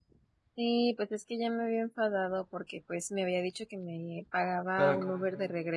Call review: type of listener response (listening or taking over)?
listening